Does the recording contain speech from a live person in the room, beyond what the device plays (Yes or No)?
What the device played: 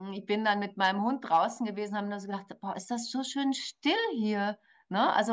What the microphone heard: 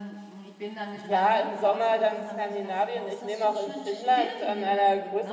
Yes